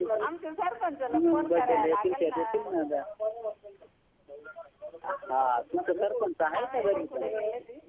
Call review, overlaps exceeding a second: present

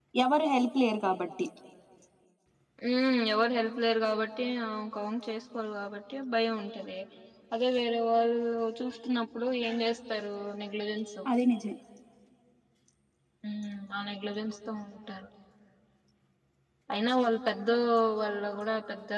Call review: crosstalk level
none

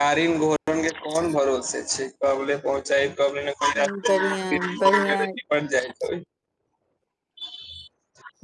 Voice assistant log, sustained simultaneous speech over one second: present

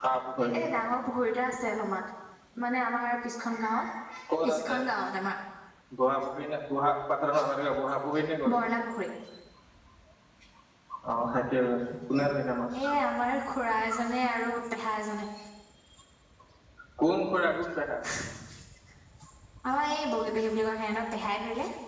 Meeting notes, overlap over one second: none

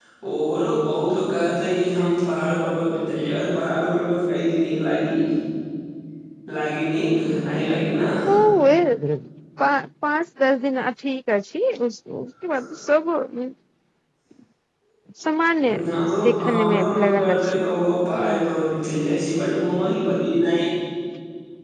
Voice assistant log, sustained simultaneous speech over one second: present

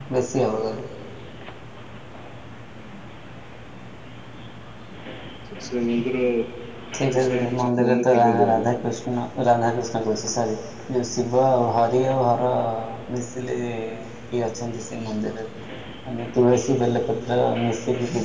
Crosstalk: present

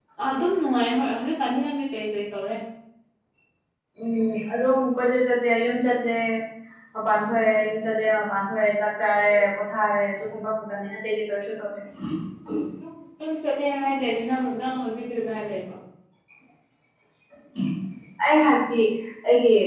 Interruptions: none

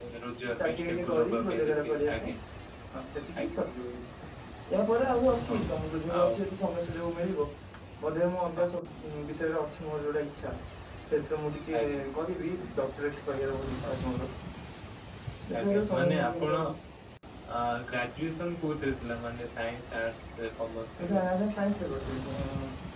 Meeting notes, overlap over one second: present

